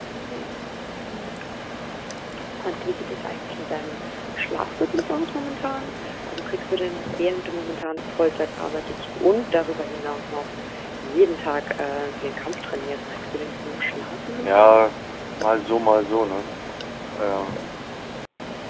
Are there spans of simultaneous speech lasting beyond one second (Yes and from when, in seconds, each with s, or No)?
No